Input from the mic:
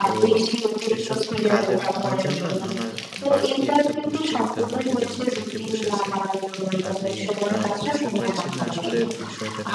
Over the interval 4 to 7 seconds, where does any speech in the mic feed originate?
both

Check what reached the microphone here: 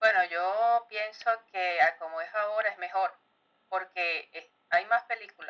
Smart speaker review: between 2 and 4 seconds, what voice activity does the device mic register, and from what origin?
echo only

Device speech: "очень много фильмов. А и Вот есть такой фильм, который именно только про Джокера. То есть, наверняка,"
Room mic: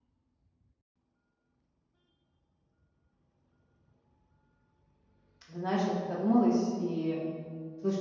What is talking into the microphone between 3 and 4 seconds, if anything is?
neither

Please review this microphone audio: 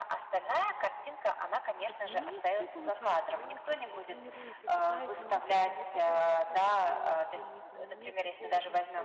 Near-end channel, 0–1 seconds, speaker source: echo only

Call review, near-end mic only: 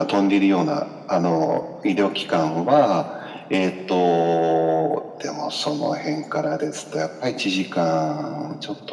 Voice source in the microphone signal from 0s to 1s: echo only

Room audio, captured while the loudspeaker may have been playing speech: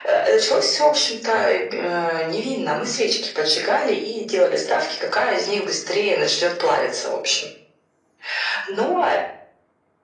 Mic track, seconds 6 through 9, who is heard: echo only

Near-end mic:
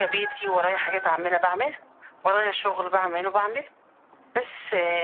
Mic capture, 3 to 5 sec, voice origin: echo only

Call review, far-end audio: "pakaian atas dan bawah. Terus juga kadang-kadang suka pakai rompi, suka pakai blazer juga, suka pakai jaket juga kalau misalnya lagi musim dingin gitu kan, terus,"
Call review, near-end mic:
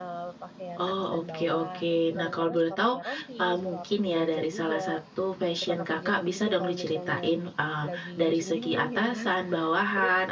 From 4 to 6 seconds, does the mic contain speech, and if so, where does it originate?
both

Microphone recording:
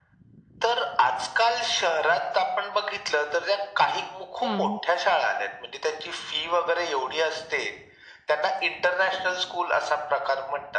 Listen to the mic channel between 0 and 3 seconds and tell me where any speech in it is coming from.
echo only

